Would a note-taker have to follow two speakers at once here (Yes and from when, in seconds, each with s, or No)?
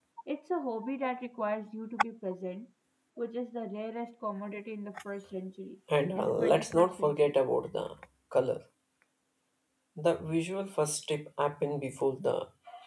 Yes, from 6.2 s